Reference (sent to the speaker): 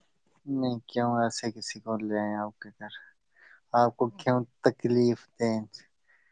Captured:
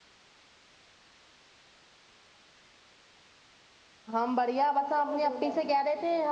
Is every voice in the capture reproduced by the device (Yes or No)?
No